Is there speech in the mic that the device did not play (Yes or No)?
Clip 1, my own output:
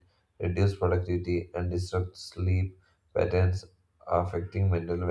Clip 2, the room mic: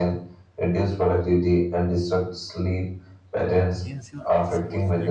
Yes